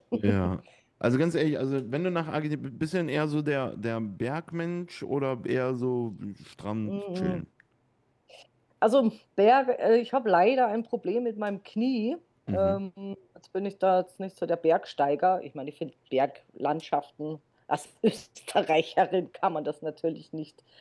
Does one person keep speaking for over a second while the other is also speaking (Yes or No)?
No